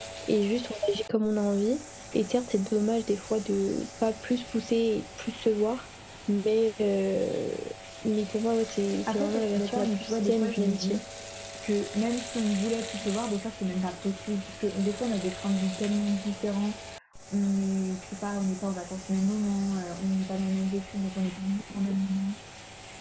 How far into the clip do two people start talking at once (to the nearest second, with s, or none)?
9 s